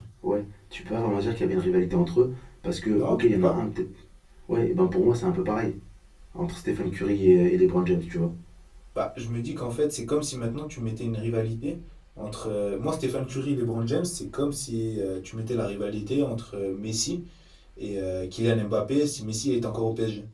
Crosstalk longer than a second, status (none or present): none